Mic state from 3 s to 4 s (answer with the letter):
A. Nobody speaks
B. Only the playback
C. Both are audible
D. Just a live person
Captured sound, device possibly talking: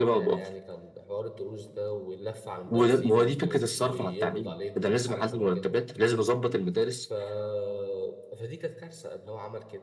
C